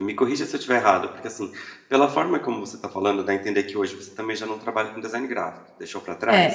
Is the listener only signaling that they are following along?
No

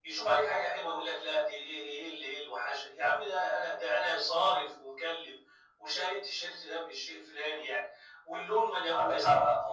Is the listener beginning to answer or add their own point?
Yes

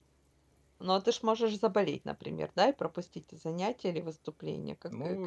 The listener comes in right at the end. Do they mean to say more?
Yes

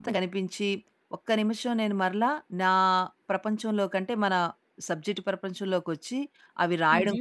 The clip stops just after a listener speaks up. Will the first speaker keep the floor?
Yes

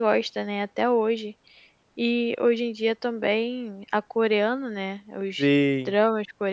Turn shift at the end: No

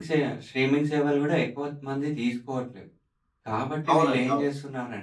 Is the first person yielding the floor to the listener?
No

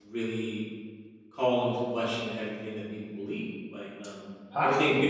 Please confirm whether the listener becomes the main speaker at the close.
No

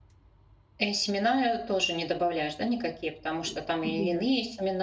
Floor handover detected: No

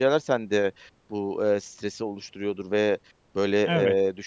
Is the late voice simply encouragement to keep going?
Yes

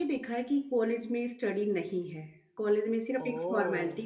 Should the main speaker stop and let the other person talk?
No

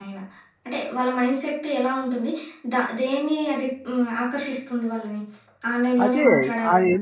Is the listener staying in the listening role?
No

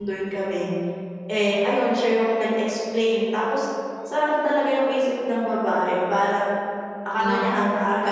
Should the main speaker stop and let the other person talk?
No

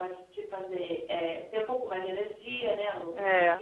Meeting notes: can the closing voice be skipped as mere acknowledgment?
No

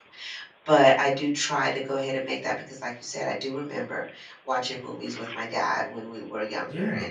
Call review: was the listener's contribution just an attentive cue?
Yes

